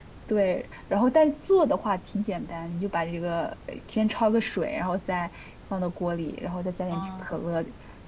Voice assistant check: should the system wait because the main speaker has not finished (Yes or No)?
Yes